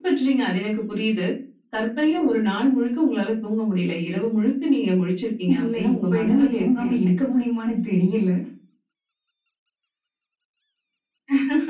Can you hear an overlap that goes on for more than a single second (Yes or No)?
Yes